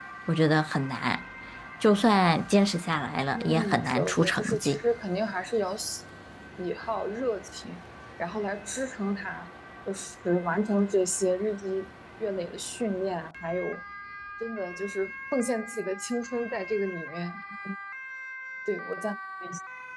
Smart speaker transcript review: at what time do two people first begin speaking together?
3.3 s

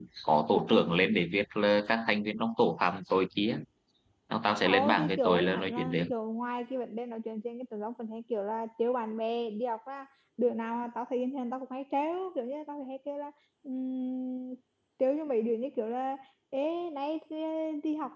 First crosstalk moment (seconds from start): 4.7 s

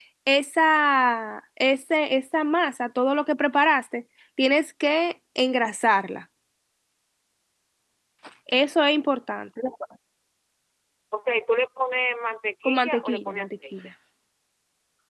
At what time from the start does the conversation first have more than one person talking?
12.6 s

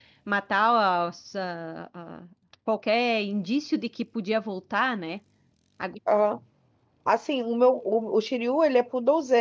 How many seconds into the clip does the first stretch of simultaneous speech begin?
none

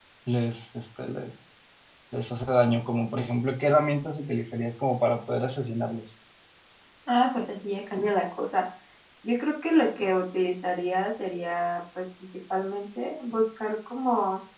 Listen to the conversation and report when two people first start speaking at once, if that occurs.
none

